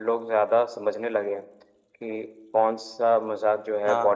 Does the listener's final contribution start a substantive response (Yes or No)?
No